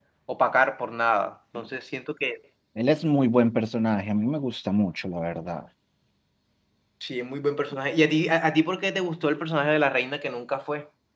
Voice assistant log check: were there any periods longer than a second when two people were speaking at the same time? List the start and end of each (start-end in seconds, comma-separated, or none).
none